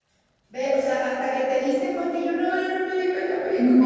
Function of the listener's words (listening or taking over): taking over